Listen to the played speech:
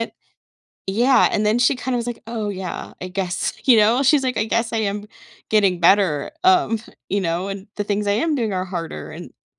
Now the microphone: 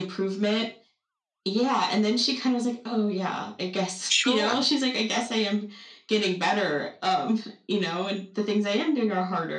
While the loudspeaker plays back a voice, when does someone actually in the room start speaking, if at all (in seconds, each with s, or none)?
4.1 s